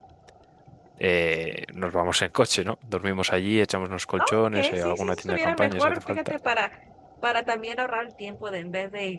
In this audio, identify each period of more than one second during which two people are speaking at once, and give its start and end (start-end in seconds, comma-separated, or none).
4.2-6.3